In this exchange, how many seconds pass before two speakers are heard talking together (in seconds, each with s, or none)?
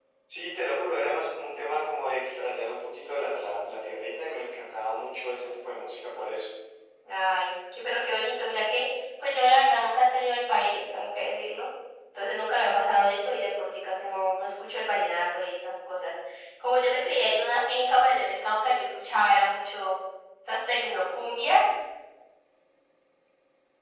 none